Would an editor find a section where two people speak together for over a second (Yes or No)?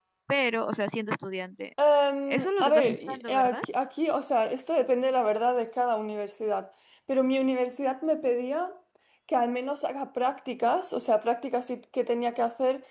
Yes